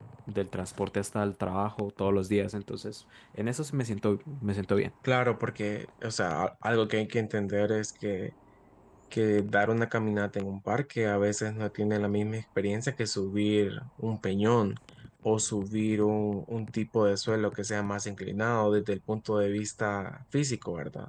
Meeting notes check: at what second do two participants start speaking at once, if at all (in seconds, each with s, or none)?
none